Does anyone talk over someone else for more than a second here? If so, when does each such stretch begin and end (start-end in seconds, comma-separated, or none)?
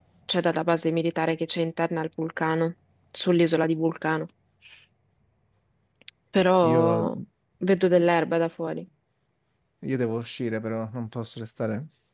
none